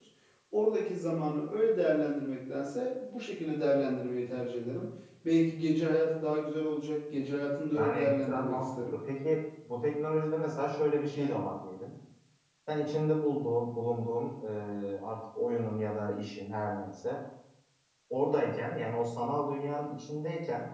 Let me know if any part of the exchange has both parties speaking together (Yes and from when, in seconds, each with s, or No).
Yes, from 7.7 s